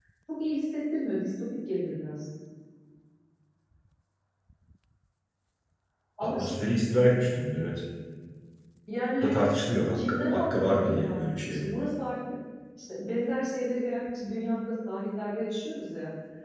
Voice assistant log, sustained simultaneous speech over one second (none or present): present